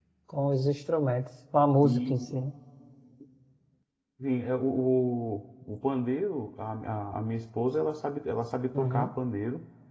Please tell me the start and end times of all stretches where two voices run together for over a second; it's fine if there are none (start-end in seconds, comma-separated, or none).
none